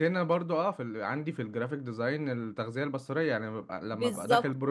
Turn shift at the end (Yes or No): No